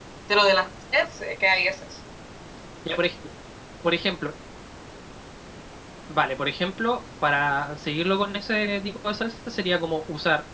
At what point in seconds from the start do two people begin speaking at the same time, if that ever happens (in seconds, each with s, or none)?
none